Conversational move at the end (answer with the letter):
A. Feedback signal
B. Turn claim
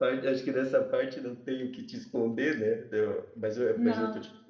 A